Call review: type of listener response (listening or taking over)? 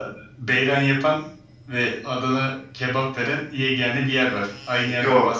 taking over